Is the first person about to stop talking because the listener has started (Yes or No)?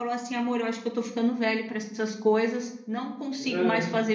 No